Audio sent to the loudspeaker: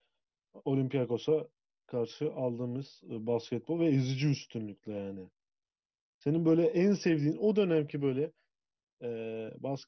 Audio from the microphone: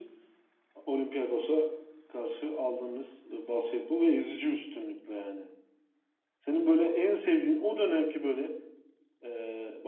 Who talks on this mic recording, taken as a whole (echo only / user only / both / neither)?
echo only